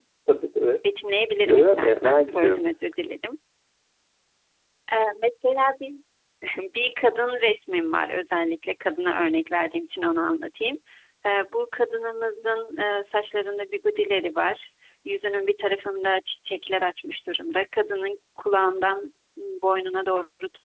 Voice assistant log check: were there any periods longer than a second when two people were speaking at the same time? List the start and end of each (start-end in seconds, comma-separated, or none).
1.5-2.7